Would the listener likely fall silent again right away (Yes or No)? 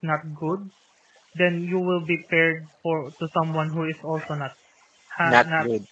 Yes